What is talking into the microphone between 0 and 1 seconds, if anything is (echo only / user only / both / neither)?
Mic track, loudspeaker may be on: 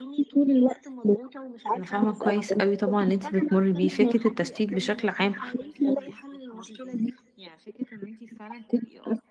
echo only